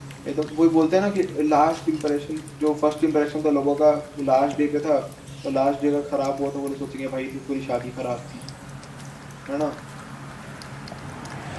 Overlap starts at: none

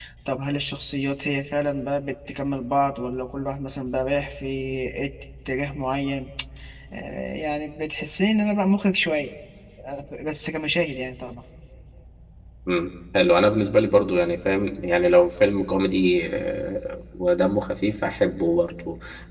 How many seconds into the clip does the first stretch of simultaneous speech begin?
none

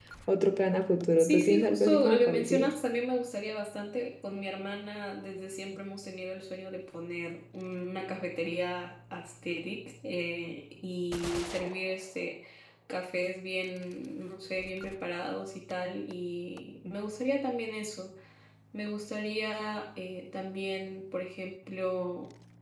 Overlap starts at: 1 s

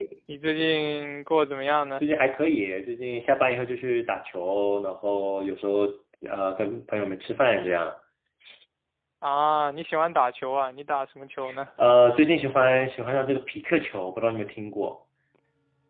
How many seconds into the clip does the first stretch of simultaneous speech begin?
none

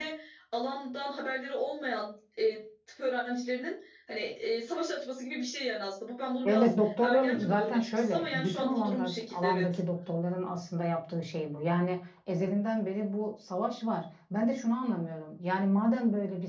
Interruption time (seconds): 6 s

